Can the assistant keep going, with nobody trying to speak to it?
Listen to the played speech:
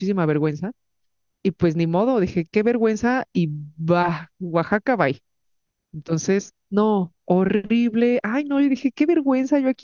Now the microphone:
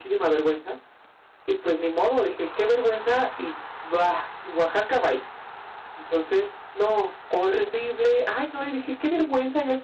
Yes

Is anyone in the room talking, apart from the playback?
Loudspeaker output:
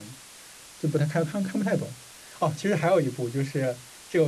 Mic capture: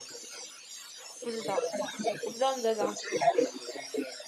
Yes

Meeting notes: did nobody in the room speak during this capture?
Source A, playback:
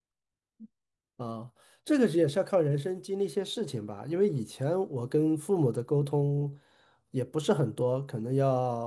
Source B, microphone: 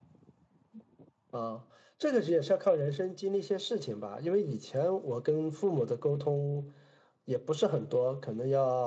Yes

